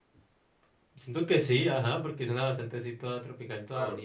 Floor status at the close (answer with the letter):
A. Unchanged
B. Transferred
B